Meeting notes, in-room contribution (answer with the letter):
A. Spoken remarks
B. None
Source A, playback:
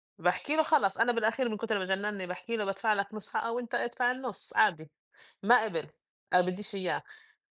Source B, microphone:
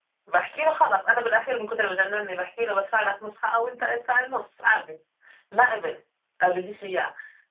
B